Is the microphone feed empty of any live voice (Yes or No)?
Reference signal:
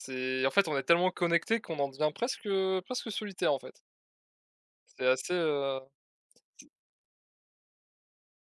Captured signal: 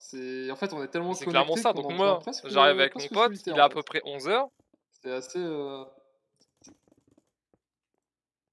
No